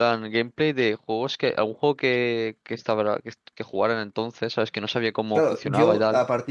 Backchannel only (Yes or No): No